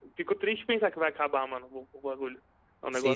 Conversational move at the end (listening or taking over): taking over